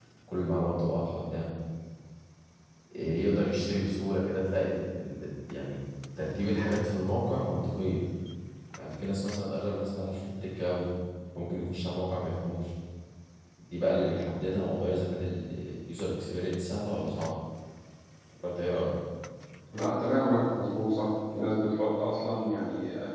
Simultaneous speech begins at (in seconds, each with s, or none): none